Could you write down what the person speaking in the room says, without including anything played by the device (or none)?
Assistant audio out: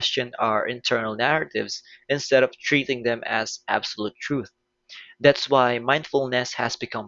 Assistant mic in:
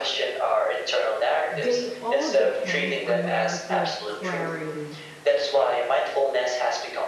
they all depend on narrative clarity.